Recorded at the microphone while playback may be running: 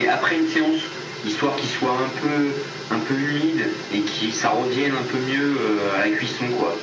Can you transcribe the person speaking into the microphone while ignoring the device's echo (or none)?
none